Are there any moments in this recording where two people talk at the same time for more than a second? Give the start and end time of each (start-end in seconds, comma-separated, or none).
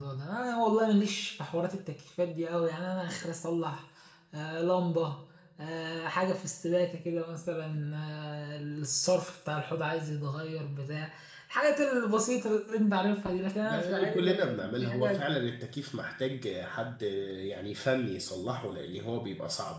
13.6-15.3